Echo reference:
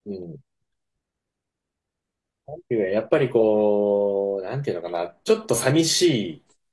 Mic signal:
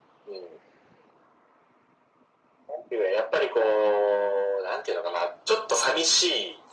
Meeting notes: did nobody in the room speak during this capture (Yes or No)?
Yes